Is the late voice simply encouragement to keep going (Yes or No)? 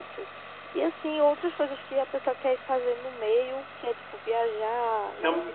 No